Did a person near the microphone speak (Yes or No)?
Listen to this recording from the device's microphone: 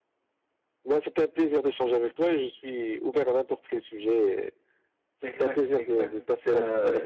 Yes